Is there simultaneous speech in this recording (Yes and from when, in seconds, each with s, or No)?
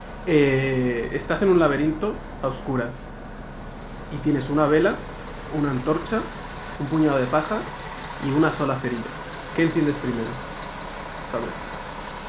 No